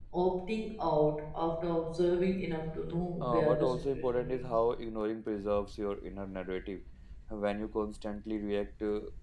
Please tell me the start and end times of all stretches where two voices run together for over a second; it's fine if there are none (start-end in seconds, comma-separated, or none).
3.2-4.5